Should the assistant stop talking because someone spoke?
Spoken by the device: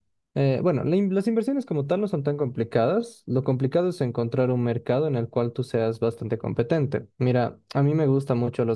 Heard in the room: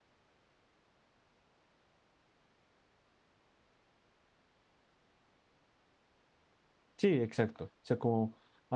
Yes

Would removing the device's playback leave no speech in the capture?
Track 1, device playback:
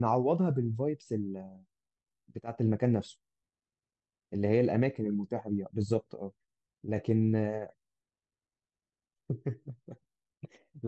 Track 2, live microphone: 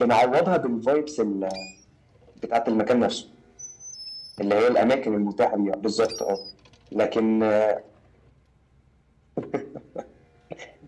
Yes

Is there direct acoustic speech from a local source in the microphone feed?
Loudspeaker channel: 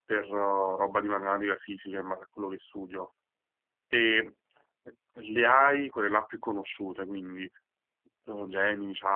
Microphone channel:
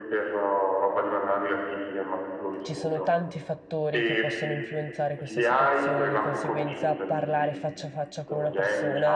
Yes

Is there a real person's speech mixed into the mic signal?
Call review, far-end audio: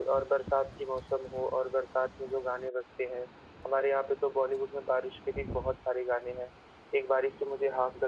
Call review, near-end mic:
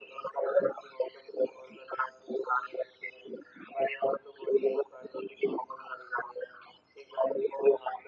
No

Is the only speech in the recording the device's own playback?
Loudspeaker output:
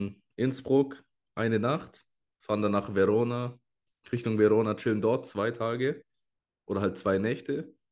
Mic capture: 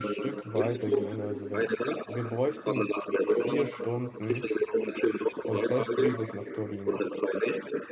No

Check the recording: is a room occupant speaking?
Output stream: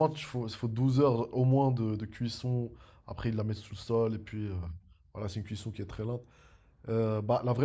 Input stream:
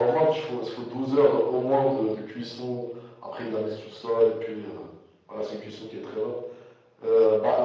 No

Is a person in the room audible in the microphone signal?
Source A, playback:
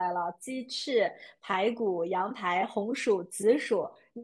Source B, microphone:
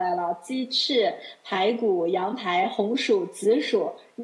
No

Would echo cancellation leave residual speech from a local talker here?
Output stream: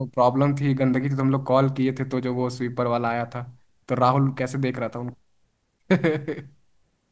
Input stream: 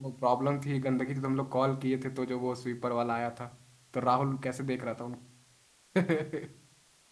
No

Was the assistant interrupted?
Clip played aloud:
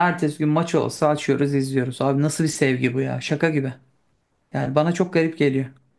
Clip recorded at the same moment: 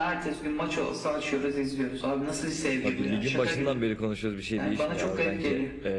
Yes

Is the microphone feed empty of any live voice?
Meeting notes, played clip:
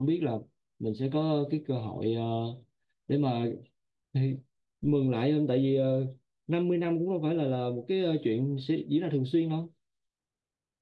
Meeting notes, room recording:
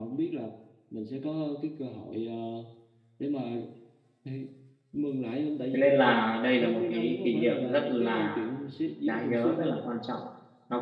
No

